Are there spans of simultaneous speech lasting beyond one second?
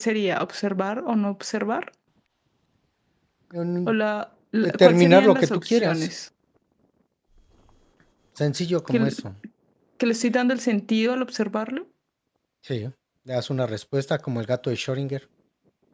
Yes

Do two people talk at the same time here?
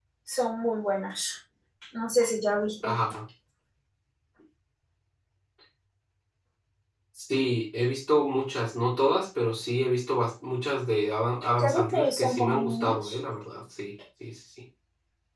Yes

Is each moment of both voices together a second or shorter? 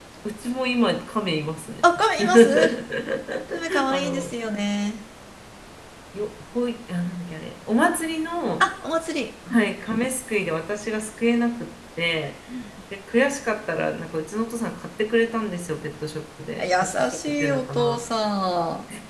No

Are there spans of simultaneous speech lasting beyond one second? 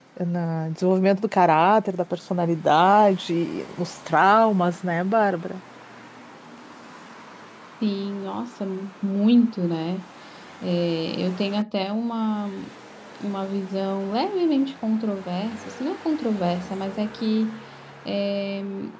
No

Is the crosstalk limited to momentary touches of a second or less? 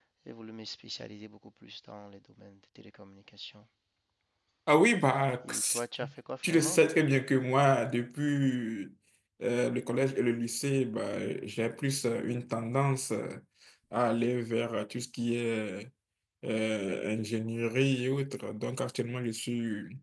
Yes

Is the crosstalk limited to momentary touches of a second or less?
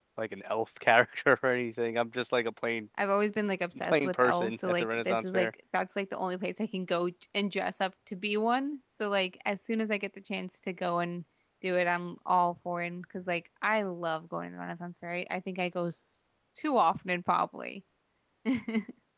No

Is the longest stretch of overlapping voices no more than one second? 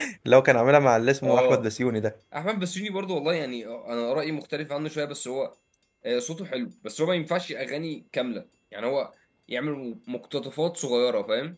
Yes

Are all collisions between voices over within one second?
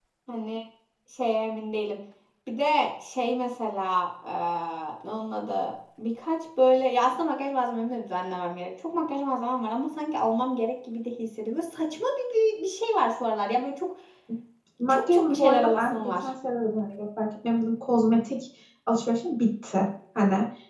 No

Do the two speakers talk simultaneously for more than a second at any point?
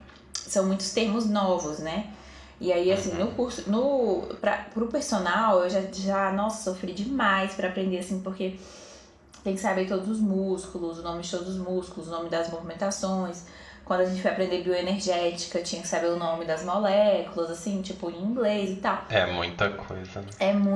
No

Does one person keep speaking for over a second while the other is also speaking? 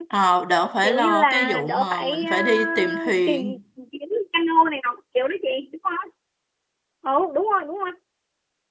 Yes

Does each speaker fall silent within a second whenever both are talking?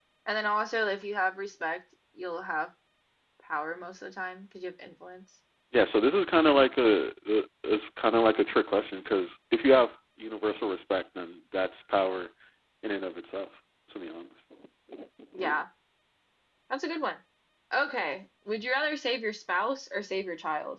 Yes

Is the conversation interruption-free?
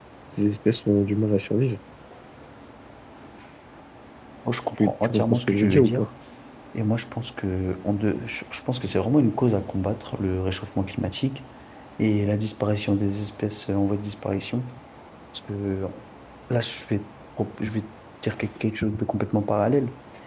No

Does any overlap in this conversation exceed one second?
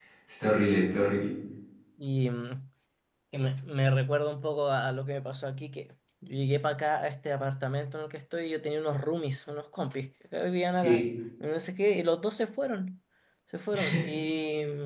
No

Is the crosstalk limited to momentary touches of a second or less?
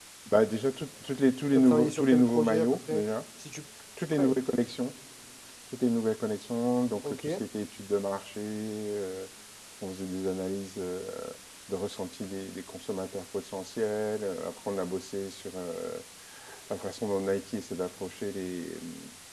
No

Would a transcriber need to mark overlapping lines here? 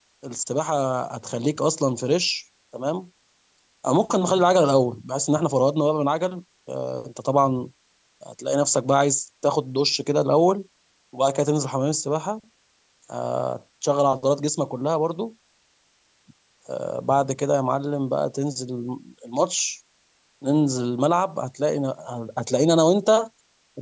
No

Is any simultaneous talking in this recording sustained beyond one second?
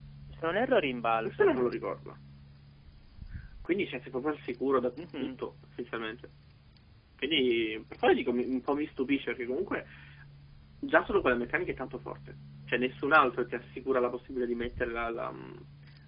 No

